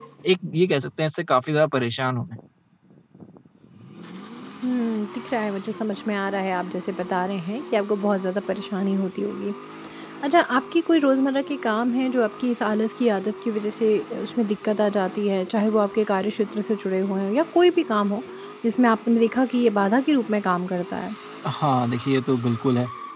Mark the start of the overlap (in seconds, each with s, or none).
none